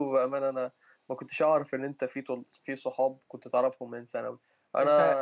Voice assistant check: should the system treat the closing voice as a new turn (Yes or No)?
No